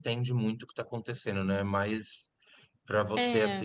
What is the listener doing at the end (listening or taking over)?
listening